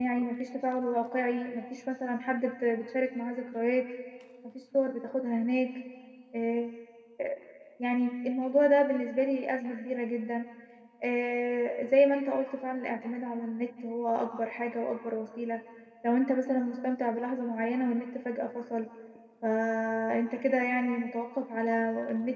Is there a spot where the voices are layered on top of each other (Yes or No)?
No